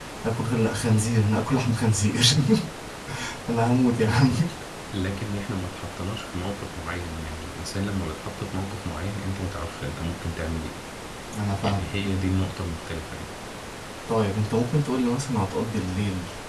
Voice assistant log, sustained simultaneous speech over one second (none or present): none